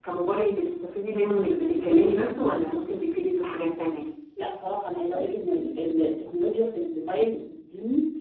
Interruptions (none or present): none